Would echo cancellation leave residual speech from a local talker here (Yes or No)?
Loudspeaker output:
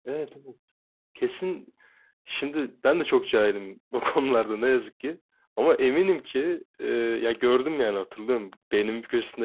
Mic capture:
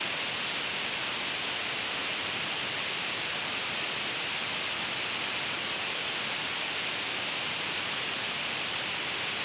No